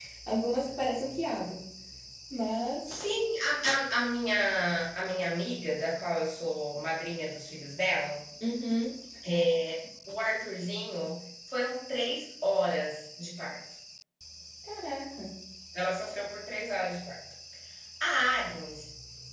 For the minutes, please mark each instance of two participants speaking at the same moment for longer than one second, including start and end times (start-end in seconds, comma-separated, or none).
none